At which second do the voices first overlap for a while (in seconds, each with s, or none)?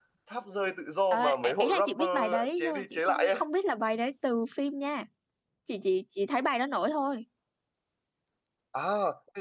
1.1 s